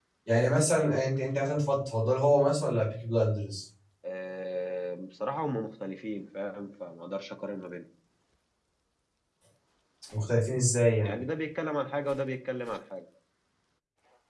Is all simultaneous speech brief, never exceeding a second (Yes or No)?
Yes